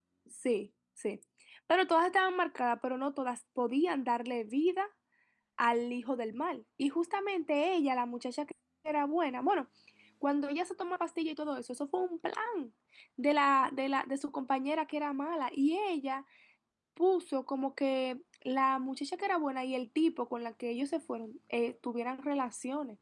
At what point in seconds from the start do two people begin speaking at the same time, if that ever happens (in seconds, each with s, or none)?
none